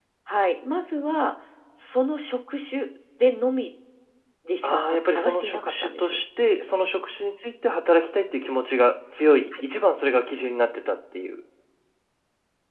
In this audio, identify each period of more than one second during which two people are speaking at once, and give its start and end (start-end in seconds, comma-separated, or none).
4.6-6.2